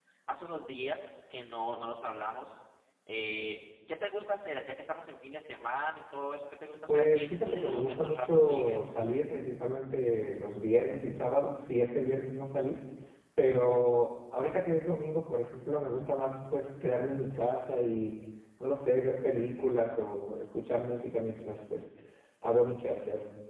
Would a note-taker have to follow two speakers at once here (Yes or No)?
Yes